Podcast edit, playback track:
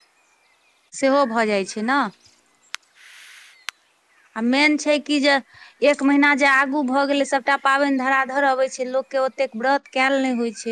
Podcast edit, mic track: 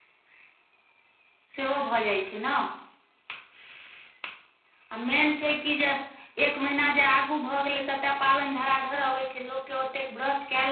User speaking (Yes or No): No